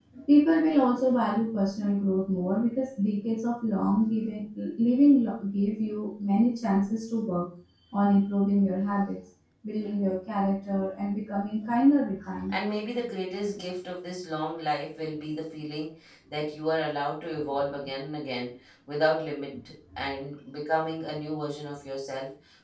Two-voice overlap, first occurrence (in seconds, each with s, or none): none